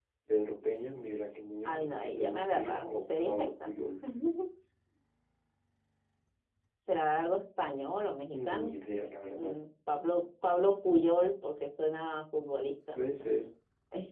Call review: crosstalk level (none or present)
present